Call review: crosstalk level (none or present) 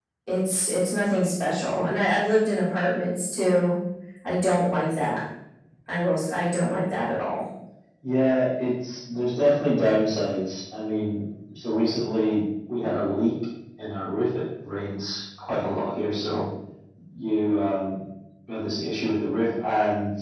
none